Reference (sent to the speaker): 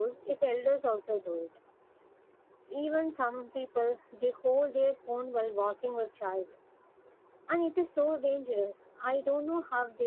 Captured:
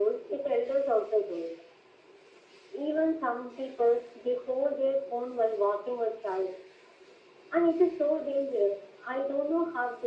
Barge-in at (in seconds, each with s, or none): none